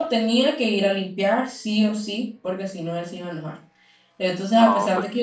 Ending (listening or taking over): listening